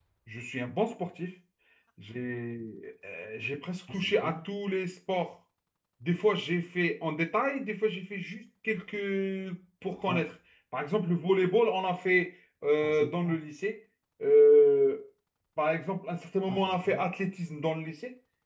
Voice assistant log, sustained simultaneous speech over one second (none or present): none